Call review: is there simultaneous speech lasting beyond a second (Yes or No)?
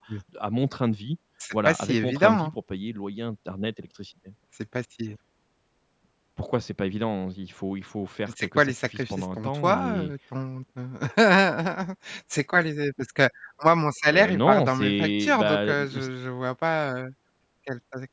Yes